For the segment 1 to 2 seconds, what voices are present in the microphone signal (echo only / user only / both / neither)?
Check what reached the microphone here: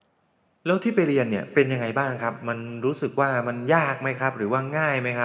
user only